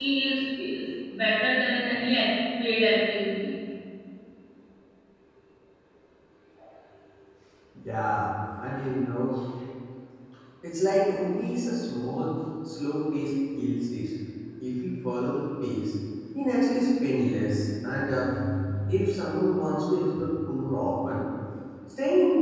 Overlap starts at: none

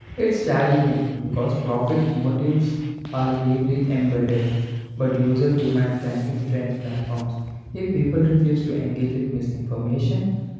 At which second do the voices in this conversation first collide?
none

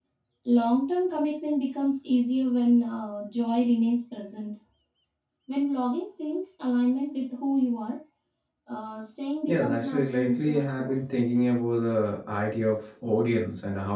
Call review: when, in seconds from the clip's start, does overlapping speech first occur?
9.5 s

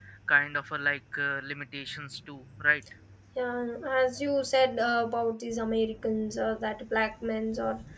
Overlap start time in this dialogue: none

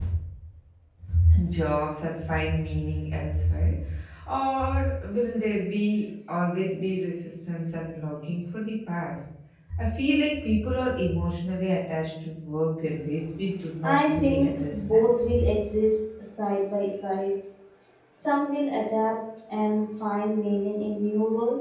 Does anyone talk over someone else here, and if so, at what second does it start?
13.8 s

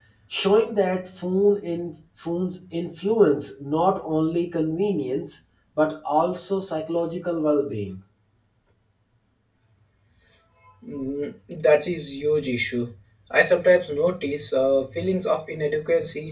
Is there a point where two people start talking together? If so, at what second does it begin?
none

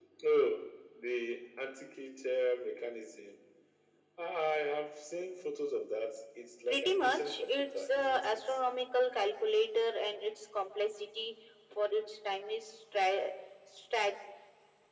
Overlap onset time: 6.7 s

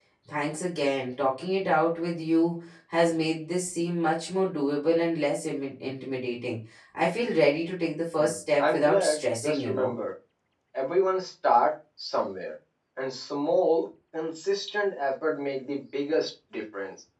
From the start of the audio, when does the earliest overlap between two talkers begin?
8.2 s

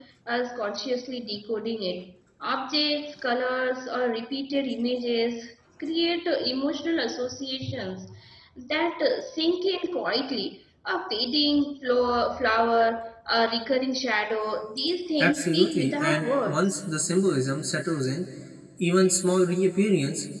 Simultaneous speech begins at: 15.2 s

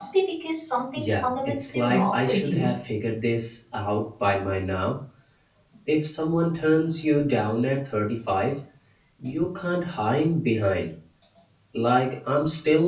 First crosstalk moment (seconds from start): 0.9 s

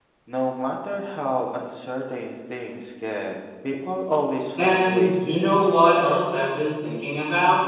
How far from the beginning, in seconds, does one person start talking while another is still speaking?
4.6 s

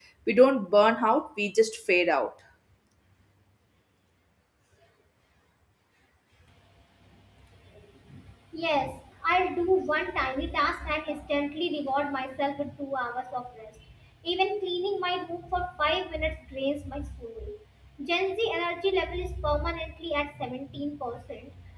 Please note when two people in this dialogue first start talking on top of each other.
none

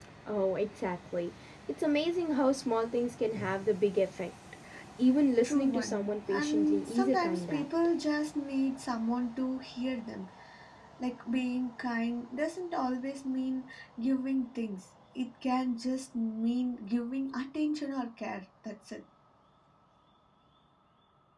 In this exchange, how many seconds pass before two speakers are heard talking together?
5.4 s

